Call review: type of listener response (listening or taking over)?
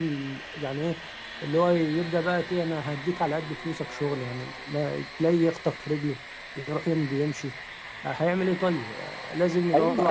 taking over